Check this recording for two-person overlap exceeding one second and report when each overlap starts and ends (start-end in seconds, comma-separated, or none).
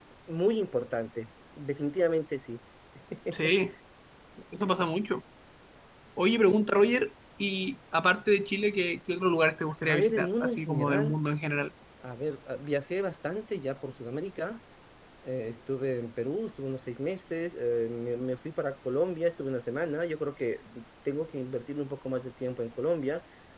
9.8-11.1